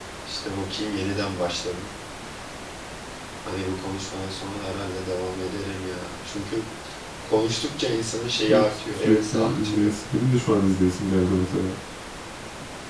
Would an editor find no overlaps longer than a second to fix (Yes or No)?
No